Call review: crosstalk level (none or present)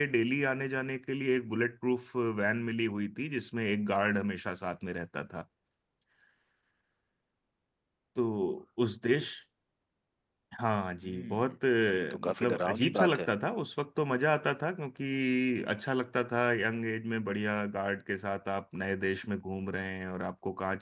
present